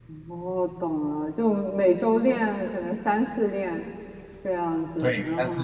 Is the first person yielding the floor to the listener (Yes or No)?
Yes